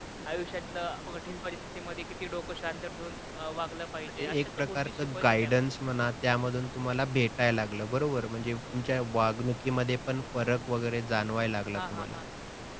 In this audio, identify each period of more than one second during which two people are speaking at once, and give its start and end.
4.2-5.6

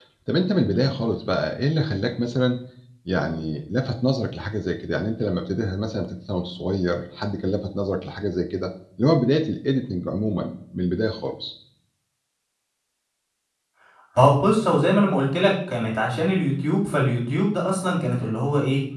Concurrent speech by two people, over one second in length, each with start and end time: none

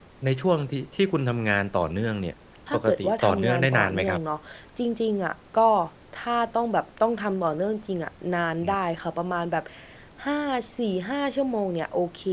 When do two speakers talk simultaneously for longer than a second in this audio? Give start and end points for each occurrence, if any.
2.7-4.2

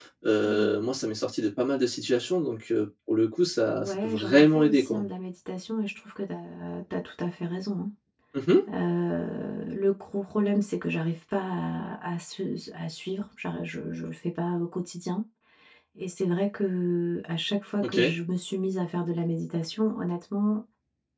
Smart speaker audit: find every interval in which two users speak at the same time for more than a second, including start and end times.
3.8-5.0

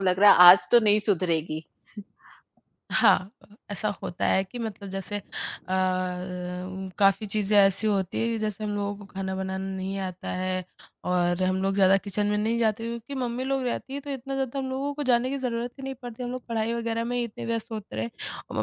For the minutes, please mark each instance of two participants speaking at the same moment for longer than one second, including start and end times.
none

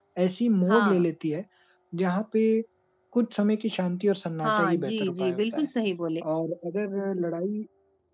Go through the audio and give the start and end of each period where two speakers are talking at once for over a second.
4.4-5.7

